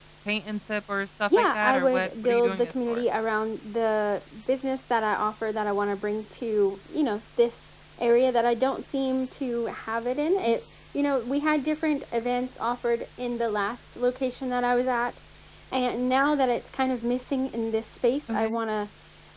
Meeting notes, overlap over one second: present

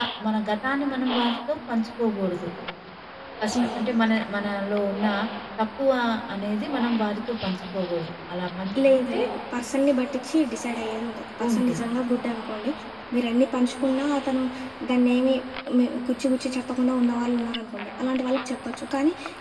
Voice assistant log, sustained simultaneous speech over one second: none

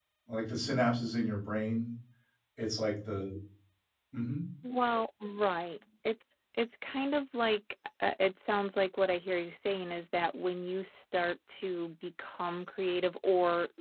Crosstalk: none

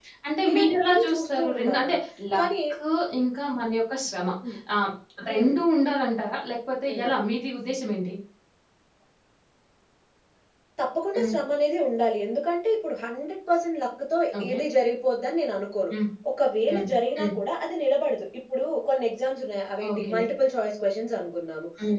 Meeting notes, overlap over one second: present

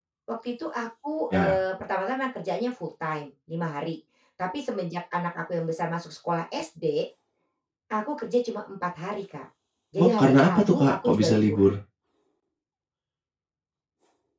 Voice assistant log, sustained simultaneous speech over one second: present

